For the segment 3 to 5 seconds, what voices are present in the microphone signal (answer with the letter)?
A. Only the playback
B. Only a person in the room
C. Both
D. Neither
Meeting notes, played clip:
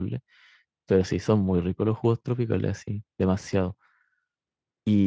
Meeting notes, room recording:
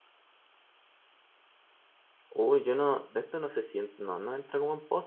B